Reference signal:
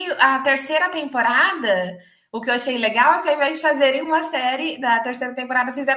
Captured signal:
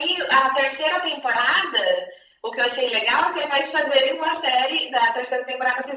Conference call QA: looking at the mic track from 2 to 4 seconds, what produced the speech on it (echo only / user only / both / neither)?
echo only